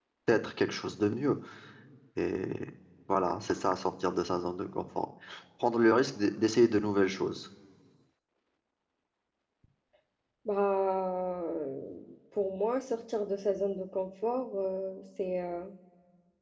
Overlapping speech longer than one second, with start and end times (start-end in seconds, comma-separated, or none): none